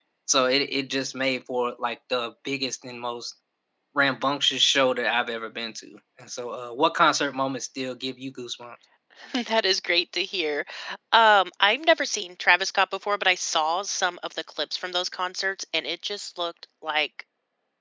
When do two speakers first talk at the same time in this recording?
none

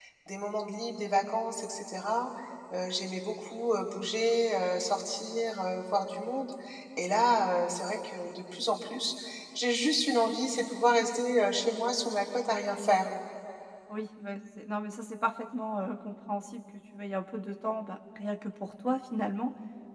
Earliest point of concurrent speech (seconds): none

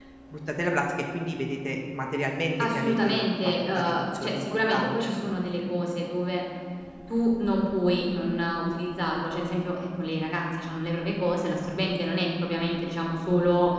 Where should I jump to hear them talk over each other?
2.6 s

